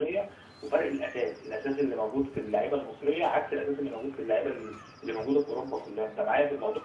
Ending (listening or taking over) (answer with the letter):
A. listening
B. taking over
B